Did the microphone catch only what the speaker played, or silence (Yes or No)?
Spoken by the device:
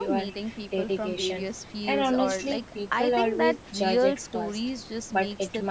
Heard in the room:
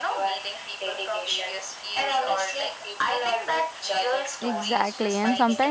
No